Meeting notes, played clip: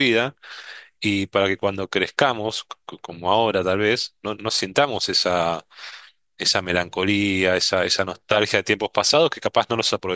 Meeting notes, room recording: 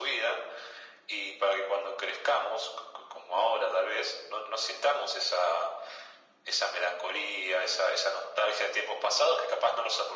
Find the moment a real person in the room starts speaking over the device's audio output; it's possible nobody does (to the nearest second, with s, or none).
none